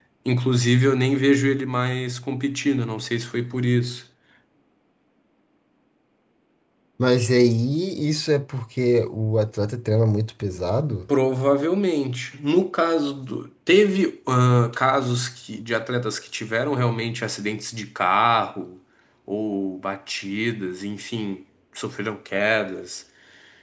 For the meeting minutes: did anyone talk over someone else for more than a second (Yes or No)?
No